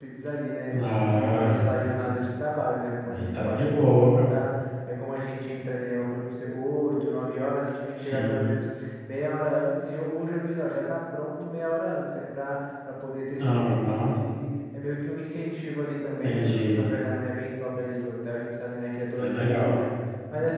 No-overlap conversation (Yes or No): No